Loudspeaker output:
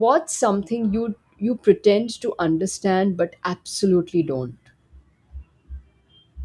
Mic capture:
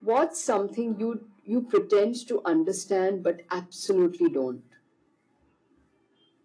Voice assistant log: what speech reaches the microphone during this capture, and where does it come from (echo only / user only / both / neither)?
echo only